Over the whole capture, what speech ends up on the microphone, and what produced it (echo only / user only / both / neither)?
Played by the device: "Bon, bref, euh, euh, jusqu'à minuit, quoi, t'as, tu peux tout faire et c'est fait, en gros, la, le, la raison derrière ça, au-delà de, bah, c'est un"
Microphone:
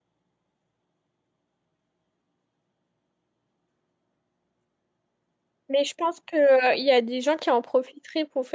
user only